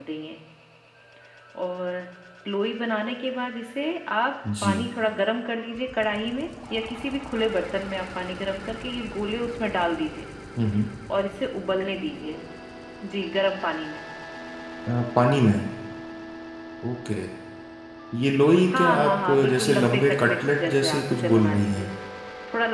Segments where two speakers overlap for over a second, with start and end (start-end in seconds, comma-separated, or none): 18.7-21.9